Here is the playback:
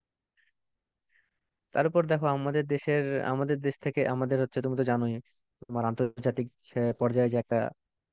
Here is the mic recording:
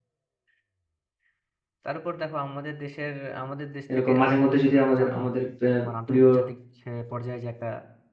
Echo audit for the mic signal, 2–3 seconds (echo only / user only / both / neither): echo only